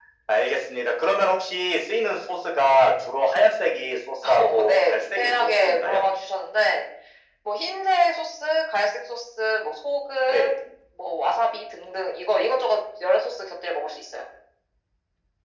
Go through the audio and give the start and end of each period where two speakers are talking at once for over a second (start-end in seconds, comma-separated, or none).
4.3-6.0